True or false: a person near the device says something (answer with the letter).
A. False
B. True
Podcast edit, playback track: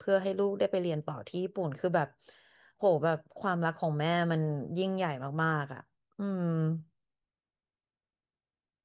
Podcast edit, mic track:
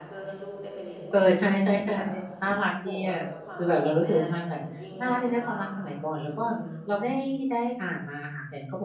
B